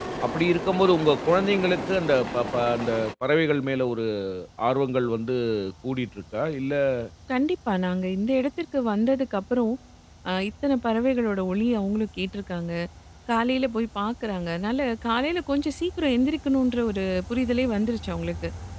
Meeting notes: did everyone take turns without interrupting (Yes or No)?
Yes